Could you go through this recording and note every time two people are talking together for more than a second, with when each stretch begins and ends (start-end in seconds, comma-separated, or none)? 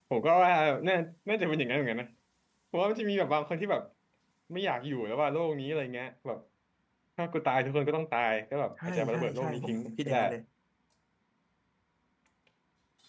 8.9-10.2